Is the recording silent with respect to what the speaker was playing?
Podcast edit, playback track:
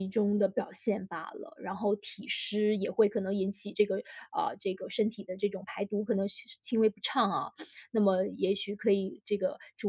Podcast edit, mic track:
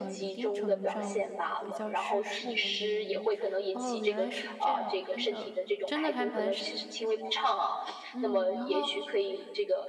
No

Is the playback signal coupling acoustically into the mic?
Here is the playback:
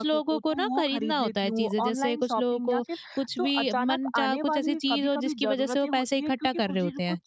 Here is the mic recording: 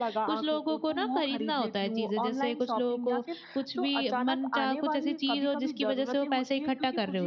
Yes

